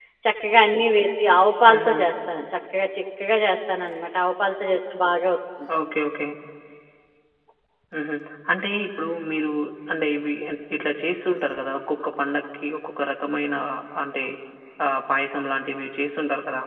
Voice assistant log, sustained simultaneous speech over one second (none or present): none